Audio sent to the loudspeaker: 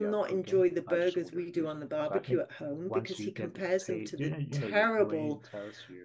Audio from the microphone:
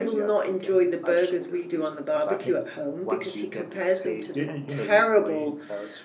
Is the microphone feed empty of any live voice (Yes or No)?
Yes